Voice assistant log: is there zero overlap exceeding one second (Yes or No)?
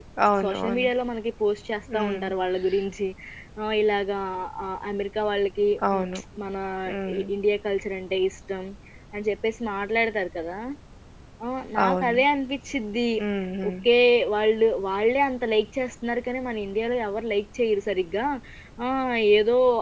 Yes